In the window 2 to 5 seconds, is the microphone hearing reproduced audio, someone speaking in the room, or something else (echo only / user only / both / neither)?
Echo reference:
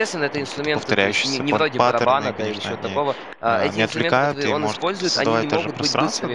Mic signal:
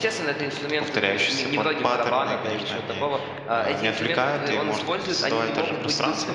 echo only